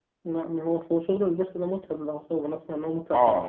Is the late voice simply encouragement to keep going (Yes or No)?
No